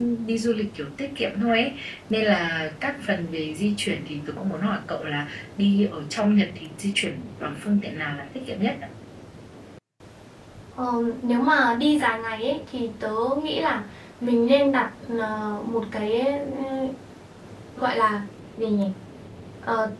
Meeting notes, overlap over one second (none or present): none